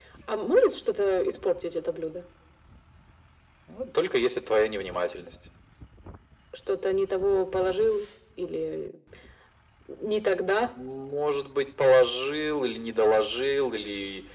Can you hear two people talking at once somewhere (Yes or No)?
No